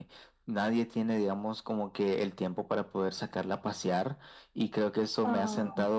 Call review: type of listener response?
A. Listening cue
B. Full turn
A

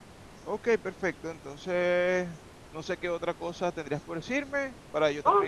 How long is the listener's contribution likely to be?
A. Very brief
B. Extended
B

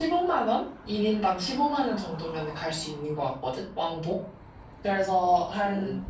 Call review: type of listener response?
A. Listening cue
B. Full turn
A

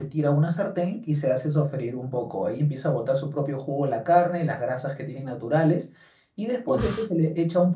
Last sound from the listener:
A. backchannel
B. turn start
A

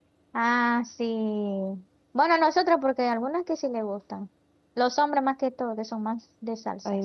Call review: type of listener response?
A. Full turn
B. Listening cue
A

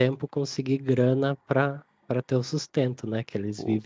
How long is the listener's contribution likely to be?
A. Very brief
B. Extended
B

